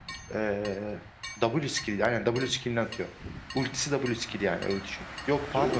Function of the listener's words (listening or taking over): listening